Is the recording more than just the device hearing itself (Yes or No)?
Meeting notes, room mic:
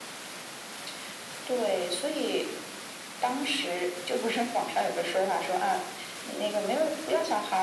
No